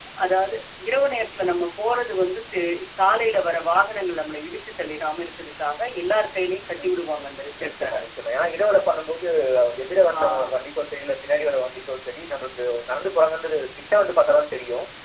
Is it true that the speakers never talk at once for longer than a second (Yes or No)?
Yes